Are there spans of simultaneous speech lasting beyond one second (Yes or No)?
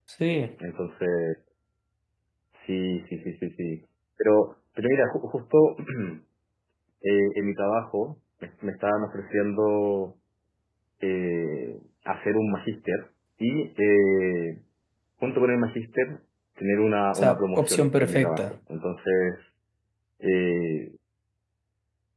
Yes